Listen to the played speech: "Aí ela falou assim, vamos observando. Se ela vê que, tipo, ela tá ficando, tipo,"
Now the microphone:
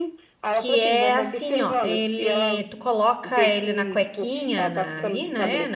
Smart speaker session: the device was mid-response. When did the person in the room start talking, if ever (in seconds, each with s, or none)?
0.5 s